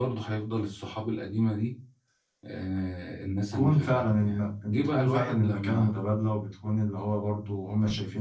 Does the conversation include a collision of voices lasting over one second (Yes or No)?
Yes